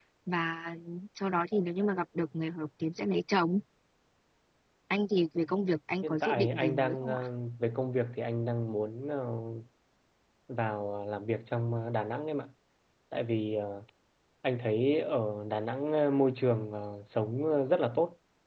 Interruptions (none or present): present